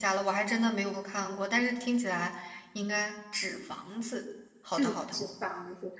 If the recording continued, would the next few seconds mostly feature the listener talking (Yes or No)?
Yes